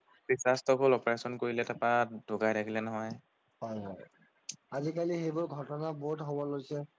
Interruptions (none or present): none